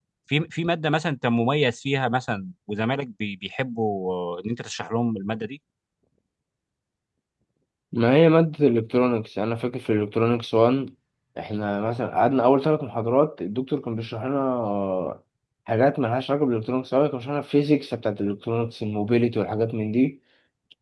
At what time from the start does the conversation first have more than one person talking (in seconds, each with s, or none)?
none